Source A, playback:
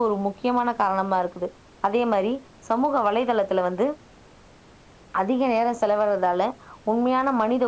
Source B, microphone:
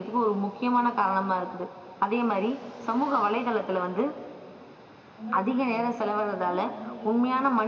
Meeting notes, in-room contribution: present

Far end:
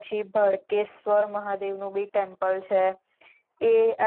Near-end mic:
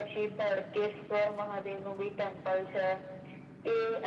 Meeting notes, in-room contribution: none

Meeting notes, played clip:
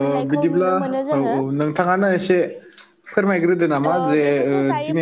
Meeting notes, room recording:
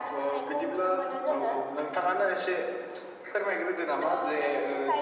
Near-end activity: none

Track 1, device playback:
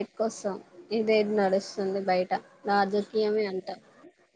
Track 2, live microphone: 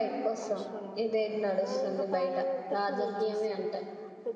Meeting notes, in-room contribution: present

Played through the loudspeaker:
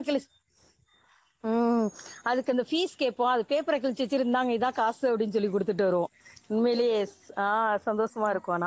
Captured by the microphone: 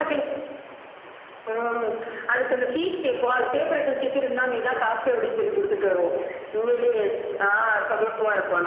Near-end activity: none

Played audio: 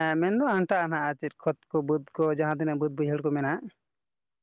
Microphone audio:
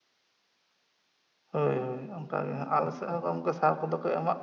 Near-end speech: present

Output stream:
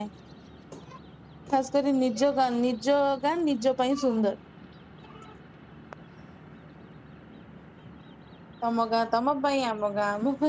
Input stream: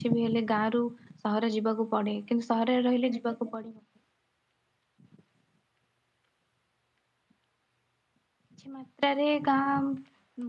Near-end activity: present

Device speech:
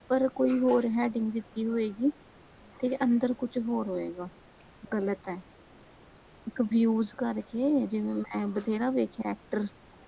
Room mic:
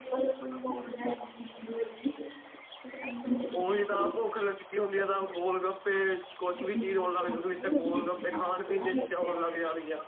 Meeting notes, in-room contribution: present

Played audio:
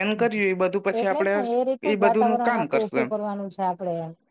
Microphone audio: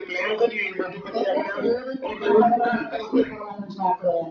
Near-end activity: none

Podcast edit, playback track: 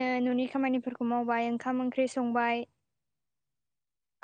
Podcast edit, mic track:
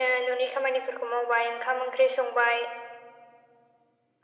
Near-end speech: none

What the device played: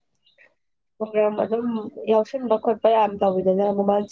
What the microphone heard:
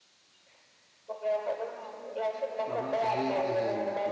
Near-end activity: present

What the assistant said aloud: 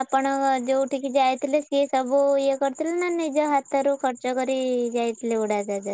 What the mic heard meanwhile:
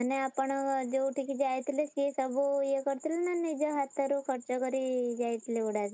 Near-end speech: none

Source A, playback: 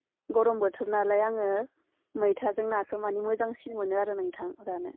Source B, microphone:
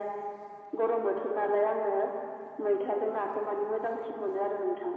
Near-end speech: none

